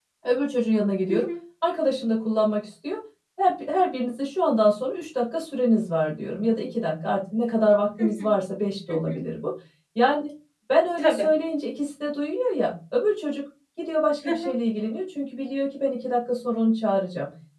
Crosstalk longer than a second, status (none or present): none